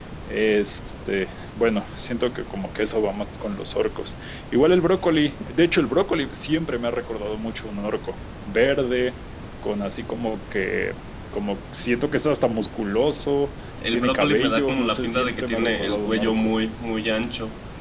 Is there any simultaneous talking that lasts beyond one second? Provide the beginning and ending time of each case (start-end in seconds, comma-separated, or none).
13.9-16.5